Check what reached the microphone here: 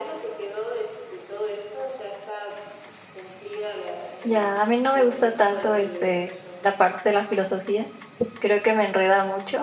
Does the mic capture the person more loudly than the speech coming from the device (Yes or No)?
Yes